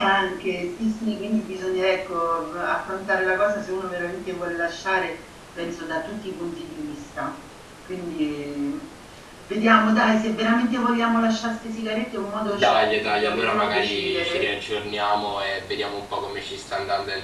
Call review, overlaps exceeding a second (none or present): present